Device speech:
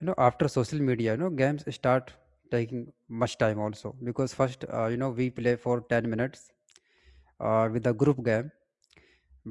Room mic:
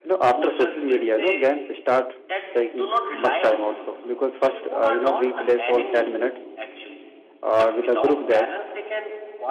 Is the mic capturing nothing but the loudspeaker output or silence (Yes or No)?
No